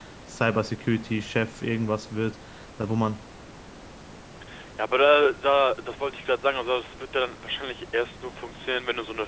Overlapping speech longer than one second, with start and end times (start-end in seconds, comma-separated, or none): none